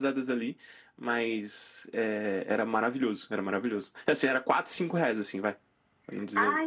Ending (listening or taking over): taking over